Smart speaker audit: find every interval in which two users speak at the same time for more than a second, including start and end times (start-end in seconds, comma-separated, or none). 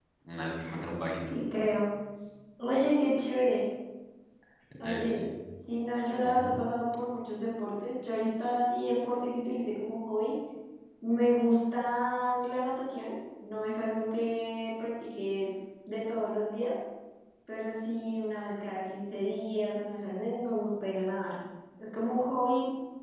none